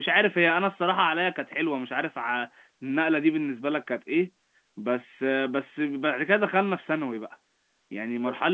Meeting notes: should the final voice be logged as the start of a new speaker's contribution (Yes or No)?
Yes